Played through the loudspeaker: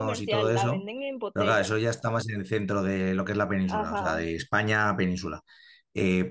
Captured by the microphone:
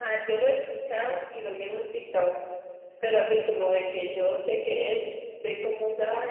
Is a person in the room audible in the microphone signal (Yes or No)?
Yes